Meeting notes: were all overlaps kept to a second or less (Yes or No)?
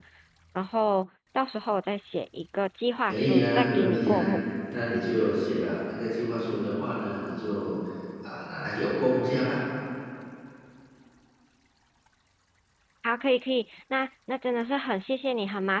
No